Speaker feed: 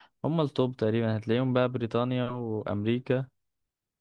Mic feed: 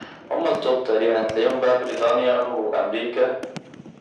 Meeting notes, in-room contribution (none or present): none